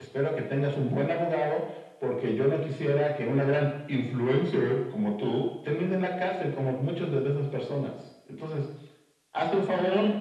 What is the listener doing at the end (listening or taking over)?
taking over